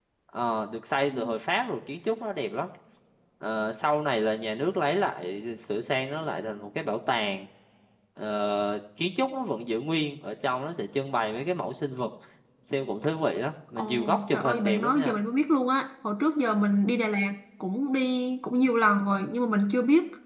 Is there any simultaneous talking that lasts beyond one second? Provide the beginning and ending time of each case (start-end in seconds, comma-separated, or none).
13.8-15.2